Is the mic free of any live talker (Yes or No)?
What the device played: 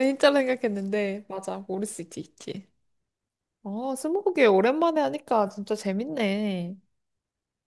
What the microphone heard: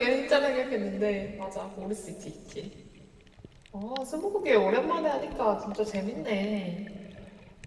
Yes